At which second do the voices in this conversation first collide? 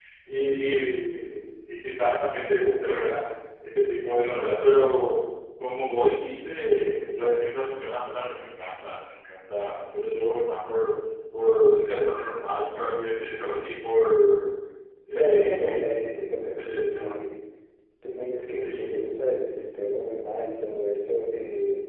15.1 s

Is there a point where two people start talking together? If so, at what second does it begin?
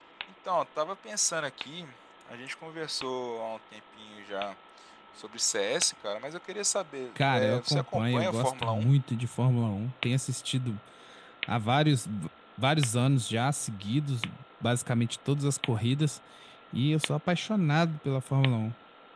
7.2 s

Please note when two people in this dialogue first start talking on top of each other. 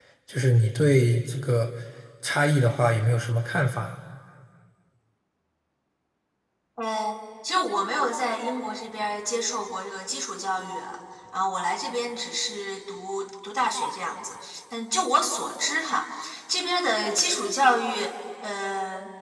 none

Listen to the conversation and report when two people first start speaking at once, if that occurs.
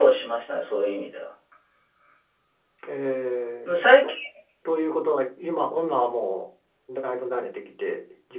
none

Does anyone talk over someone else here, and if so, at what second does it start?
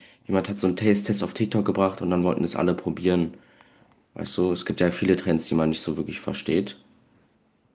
none

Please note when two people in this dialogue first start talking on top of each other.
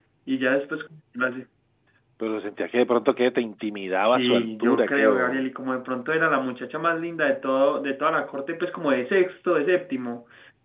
4.0 s

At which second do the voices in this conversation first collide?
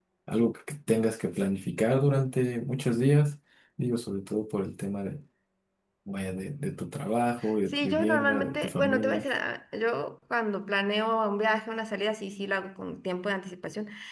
7.7 s

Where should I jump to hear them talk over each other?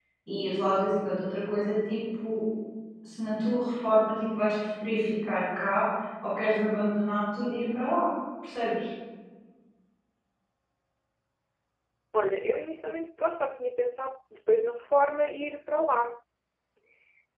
none

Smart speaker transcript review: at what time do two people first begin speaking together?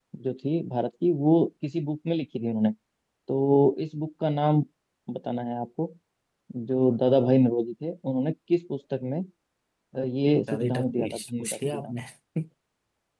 10.5 s

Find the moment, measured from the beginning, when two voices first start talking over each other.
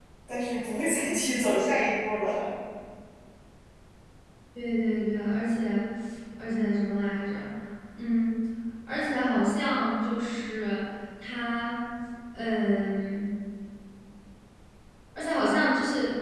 none

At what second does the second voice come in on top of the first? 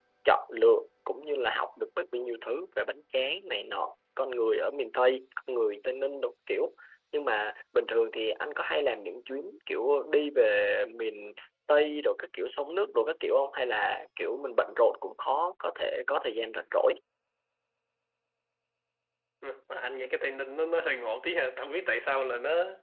none

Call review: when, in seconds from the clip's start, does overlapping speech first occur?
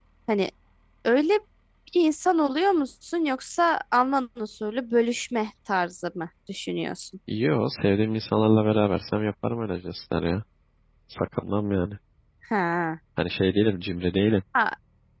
none

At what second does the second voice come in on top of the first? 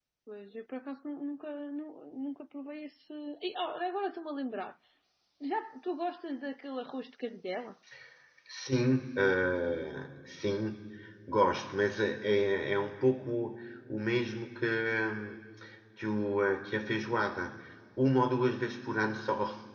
none

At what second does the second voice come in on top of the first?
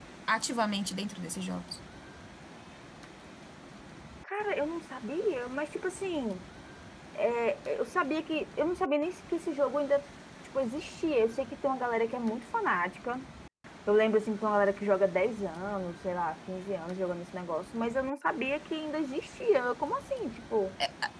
none

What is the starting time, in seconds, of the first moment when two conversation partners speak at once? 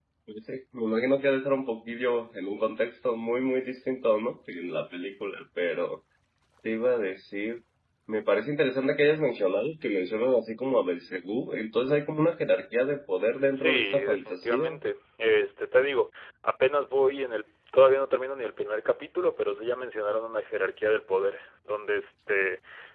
13.5 s

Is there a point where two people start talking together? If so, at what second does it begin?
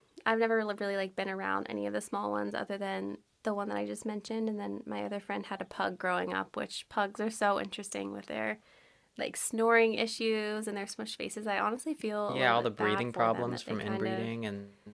12.3 s

